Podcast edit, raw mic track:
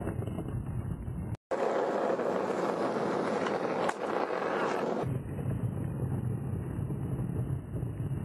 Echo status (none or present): none